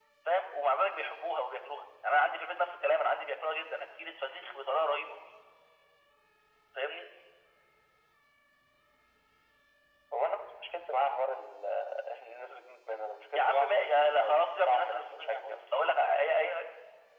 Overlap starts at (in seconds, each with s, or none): 13.3 s